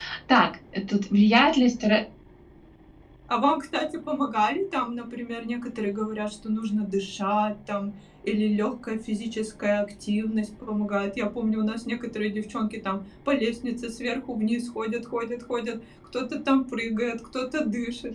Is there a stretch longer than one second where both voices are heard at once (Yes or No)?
No